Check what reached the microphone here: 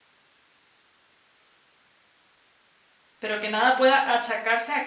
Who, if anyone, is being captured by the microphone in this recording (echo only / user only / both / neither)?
user only